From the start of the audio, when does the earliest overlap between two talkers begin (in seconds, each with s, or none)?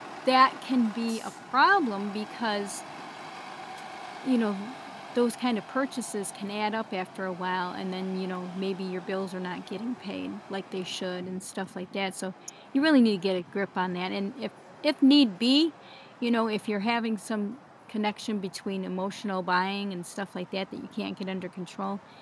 none